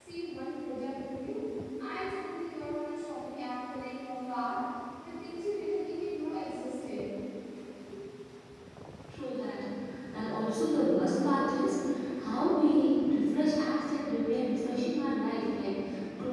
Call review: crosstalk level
none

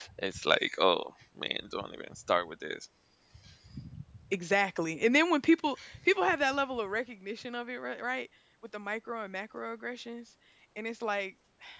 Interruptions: none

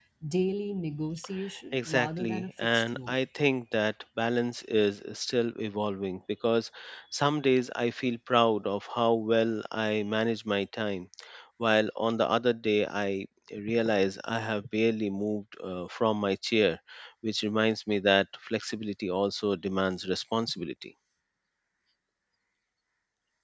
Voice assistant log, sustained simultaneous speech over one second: present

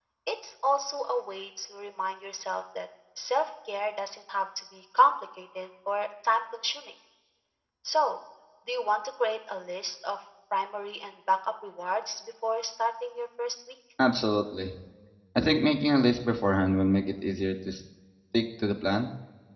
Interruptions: none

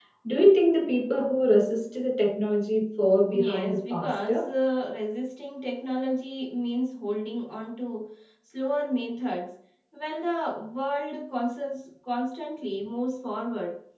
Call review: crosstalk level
present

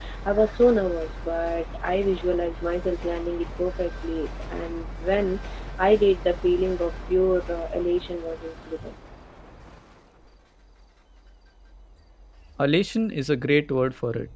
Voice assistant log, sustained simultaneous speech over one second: none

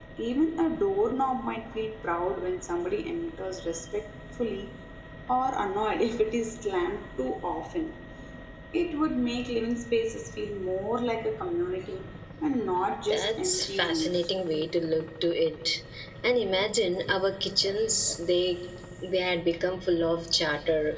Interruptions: present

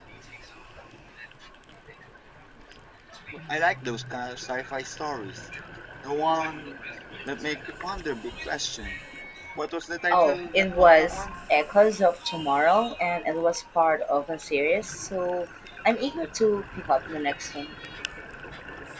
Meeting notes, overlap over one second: present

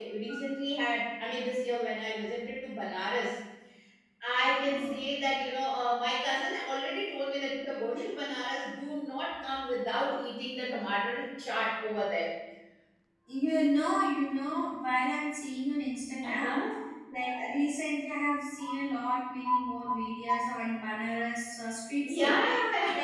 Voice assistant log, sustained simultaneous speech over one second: none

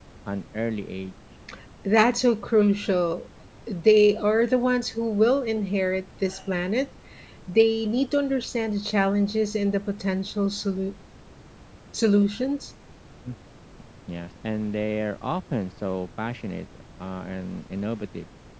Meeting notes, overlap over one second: none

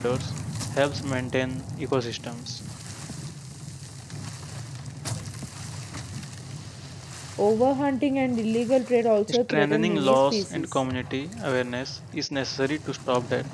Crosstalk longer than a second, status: present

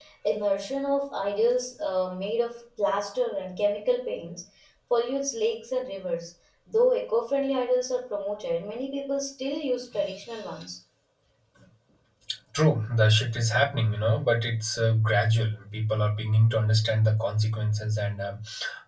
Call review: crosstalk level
none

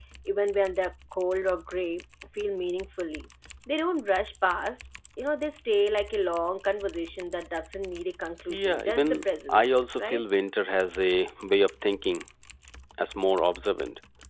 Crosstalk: present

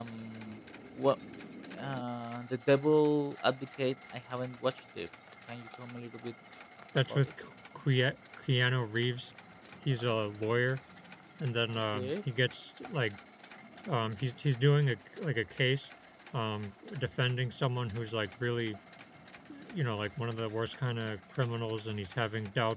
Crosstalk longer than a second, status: none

